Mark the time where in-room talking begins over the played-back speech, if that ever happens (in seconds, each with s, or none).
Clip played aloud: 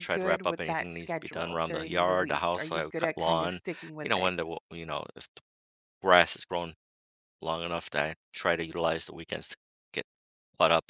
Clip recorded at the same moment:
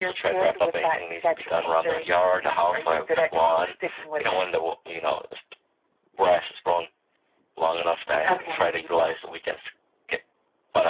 8.3 s